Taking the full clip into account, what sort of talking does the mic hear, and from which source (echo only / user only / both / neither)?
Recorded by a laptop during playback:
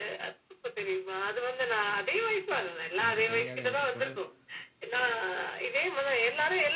both